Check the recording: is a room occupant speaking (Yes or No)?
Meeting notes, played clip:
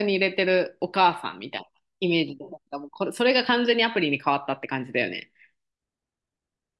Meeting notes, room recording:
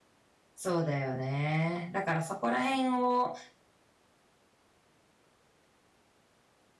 Yes